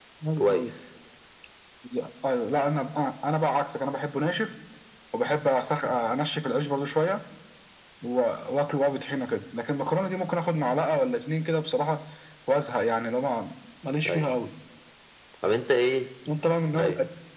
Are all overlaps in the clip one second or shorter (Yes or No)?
Yes